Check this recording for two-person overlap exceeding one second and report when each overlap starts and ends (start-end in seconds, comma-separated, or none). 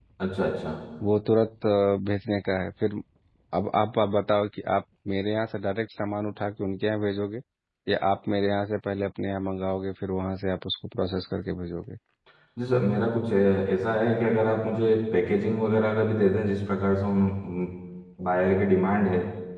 none